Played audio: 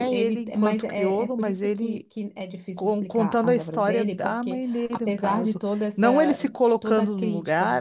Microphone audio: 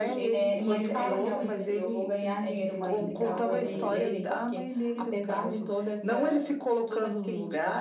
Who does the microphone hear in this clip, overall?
both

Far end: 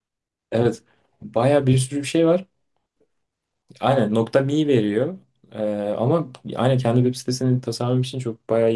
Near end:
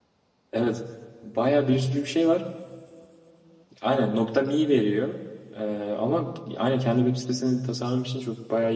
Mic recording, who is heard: echo only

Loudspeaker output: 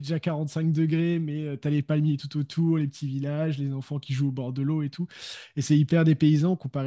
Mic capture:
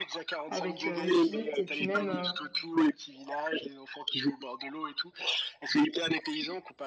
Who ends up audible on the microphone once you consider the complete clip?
both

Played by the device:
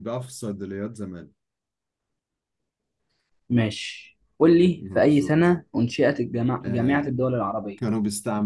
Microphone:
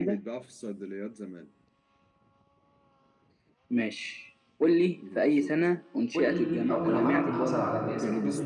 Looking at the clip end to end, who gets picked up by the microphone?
both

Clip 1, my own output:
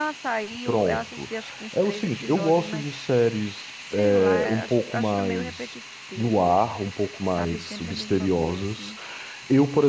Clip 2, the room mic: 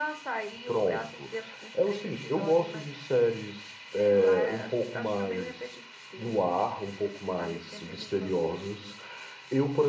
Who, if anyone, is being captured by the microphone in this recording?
echo only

